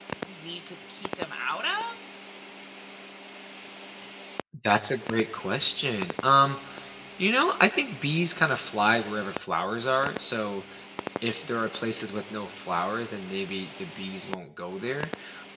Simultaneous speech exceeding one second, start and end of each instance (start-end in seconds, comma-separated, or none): none